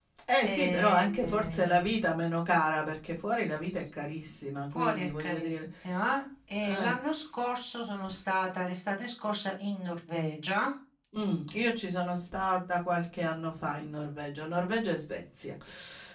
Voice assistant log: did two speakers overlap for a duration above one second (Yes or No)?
Yes